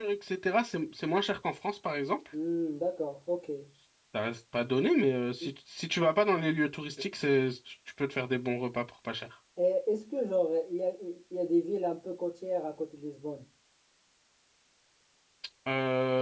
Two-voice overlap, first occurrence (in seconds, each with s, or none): none